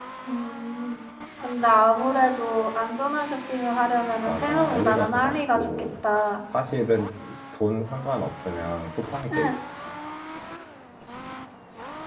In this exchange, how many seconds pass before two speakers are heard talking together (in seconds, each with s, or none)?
4.2 s